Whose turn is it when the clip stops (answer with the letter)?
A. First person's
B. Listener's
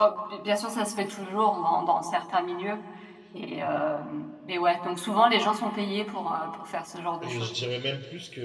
B